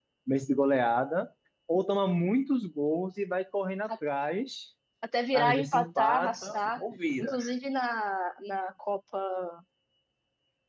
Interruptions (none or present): present